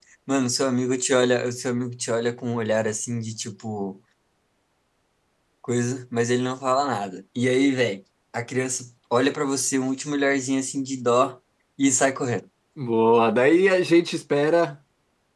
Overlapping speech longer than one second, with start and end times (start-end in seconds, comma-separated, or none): none